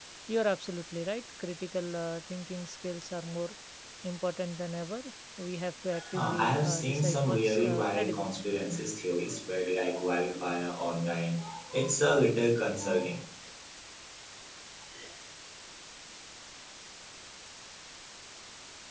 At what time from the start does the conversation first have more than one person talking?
5.9 s

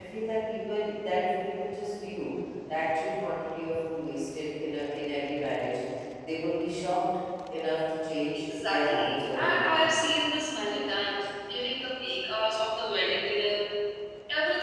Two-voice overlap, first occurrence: 8.3 s

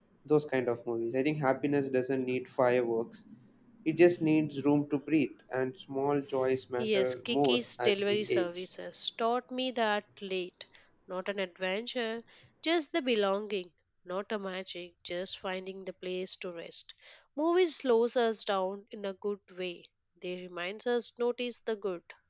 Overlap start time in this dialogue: 6.8 s

